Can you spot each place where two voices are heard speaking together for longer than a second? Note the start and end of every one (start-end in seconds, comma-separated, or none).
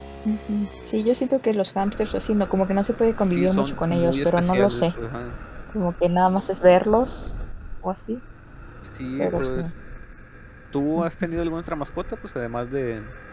3.3-4.8